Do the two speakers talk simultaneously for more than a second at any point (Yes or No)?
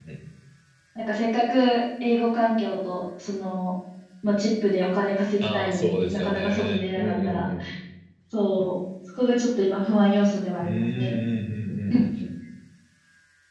Yes